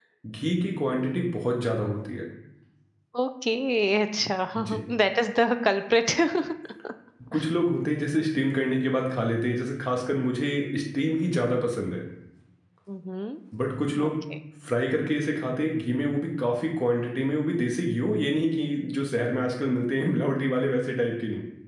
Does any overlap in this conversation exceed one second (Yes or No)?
No